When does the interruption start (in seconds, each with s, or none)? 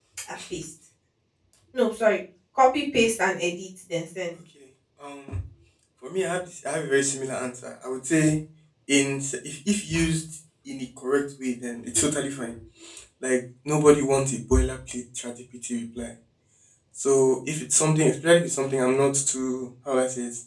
none